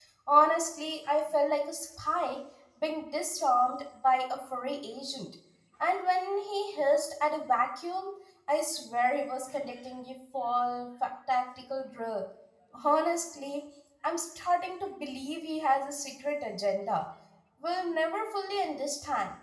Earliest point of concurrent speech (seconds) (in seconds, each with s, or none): none